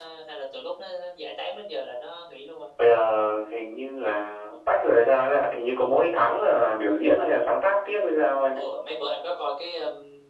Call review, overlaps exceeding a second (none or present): none